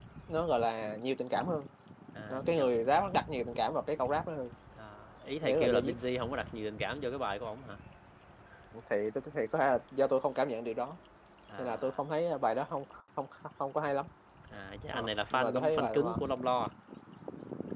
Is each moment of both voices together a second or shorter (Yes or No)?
No